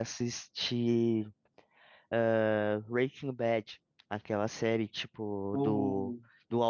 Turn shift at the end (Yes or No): No